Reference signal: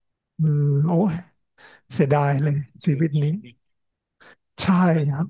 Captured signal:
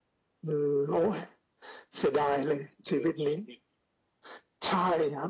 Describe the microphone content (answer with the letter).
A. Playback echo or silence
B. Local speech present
A